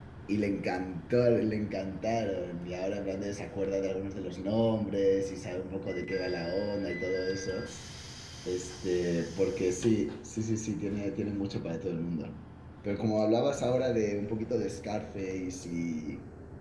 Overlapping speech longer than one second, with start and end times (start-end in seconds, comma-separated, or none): none